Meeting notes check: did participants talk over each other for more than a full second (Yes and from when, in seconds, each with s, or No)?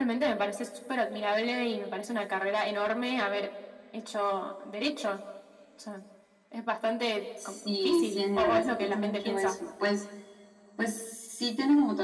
Yes, from 7.4 s